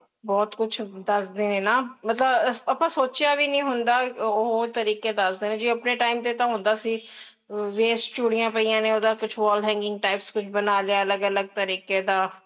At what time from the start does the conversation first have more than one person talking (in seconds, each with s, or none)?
none